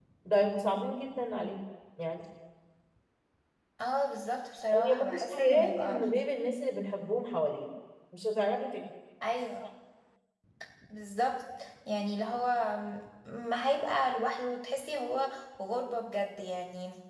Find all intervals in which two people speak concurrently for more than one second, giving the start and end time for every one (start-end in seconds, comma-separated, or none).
4.7-6.0